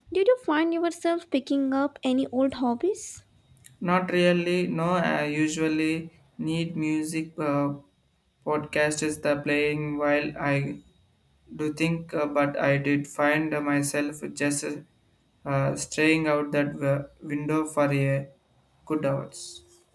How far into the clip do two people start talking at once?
none

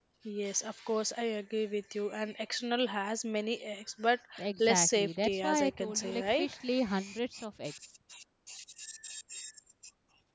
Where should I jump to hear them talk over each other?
4.6 s

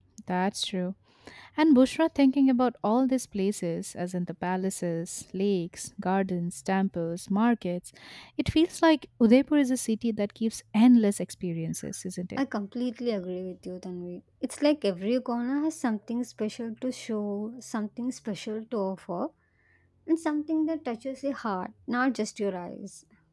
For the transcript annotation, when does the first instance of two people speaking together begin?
none

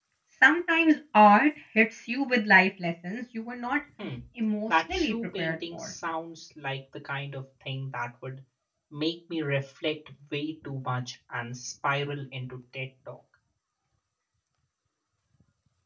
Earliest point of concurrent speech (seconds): 4.7 s

